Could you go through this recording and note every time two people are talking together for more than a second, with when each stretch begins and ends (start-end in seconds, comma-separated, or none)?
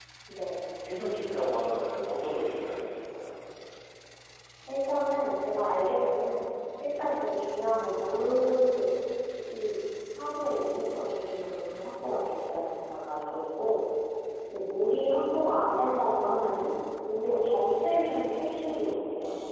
none